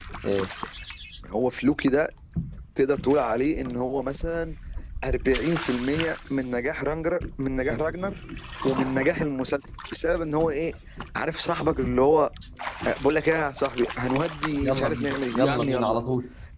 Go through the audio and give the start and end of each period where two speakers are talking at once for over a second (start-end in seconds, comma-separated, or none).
14.6-16.0